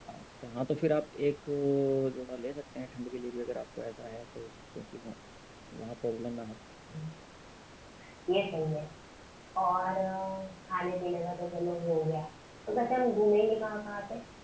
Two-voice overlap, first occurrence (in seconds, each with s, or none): none